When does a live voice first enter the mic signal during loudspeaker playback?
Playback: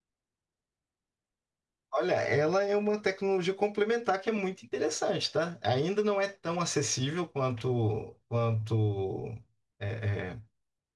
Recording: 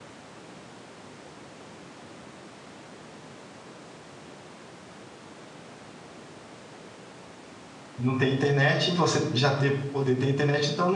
8.0 s

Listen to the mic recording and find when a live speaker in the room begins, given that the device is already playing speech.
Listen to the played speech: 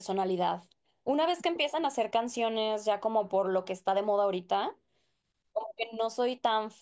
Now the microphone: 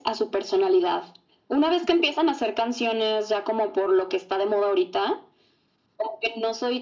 none

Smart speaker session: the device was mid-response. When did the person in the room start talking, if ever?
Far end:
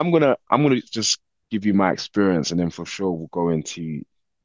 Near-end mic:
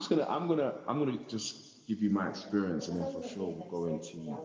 2.8 s

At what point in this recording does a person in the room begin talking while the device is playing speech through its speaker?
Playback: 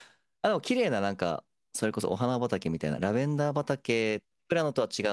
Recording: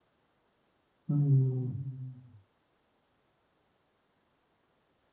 1.1 s

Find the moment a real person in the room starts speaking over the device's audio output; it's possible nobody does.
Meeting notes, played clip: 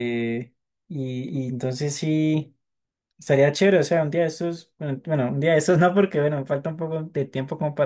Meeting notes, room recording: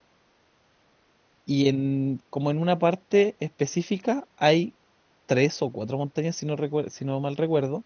1.4 s

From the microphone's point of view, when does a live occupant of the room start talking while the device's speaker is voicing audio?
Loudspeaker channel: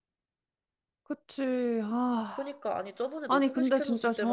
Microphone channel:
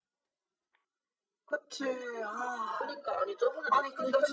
none

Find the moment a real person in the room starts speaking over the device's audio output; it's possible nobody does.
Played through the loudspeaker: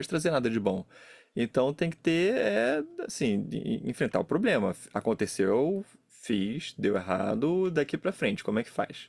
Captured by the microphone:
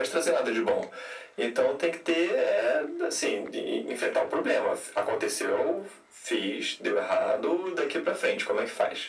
none

